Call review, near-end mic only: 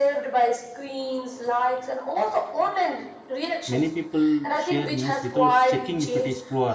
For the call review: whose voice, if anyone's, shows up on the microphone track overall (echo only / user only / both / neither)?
both